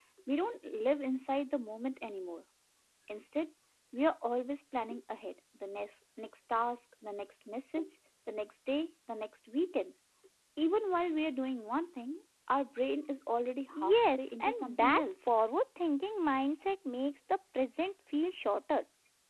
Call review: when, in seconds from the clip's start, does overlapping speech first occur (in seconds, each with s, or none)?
13.7 s